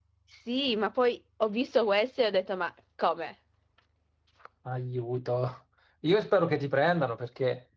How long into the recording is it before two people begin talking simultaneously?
none

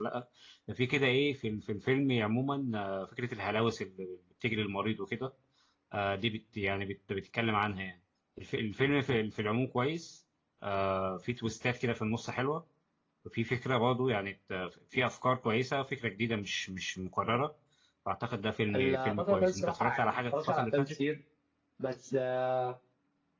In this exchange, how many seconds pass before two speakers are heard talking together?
18.7 s

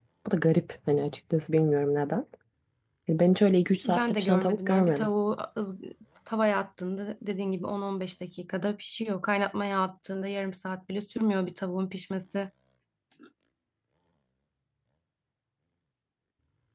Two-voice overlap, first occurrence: 3.7 s

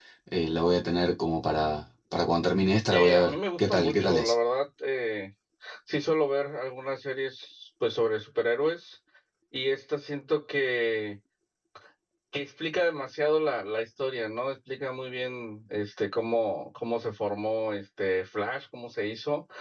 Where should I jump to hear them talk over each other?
2.9 s

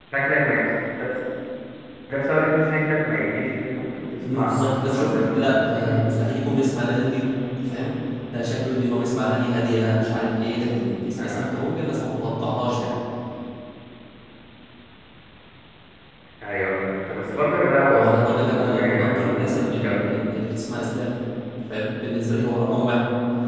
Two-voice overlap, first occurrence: 4.3 s

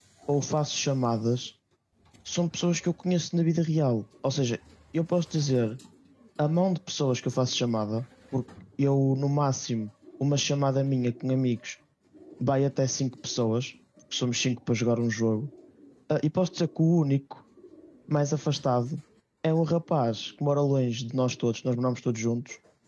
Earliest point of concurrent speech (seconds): none

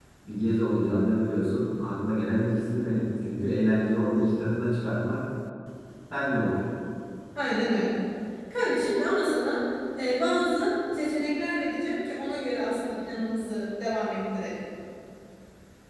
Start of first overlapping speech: none

